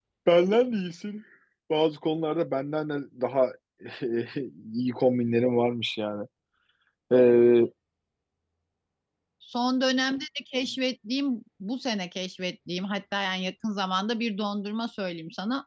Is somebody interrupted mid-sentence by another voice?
No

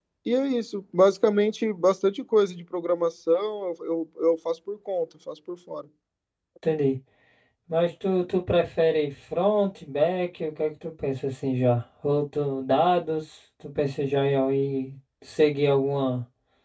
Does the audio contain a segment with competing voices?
No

